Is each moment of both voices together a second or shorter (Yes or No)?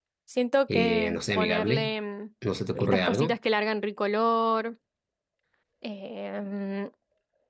No